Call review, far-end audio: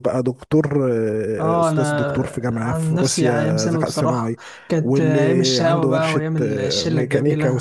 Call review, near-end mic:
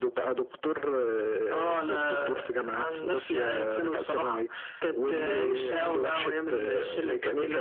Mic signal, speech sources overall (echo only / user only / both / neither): echo only